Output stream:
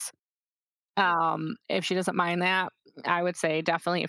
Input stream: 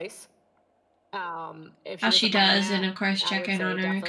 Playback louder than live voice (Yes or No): No